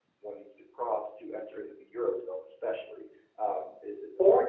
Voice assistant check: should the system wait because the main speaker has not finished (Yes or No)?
No